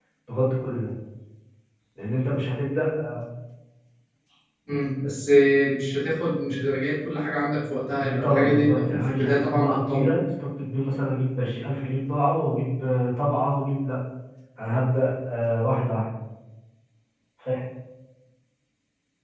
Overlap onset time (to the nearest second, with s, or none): 8 s